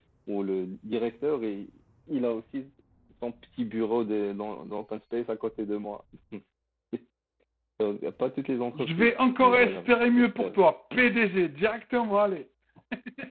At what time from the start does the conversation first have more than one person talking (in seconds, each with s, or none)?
8.7 s